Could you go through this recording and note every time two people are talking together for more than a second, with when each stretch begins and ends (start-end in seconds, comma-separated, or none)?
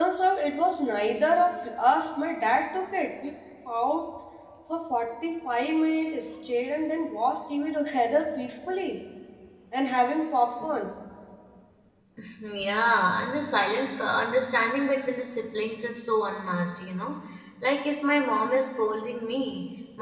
none